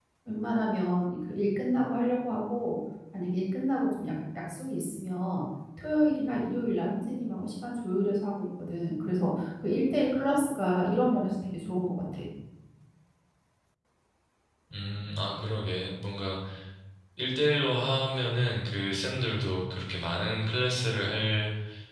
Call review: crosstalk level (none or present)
none